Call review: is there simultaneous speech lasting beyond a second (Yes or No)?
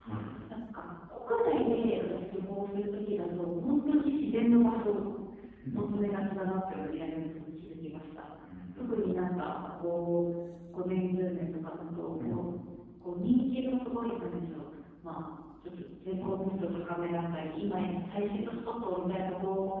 No